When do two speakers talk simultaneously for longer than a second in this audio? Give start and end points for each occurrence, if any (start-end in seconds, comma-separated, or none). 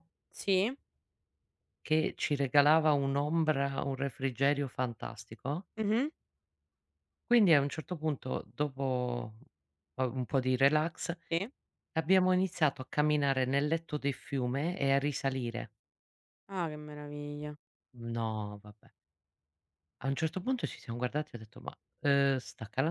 none